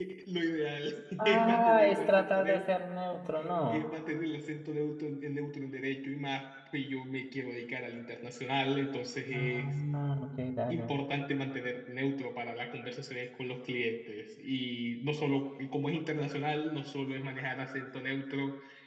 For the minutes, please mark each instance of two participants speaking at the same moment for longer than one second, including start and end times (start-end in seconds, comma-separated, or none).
1.2-2.7